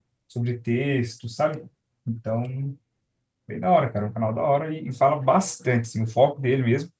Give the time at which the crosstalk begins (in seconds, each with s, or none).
none